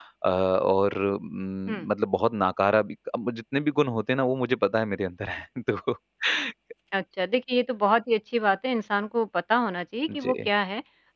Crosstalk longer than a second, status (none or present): none